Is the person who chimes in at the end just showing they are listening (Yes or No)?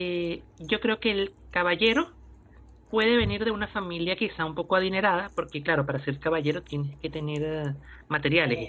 Yes